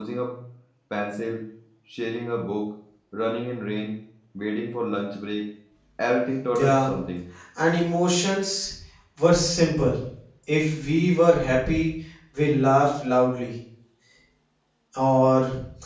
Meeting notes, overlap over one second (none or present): none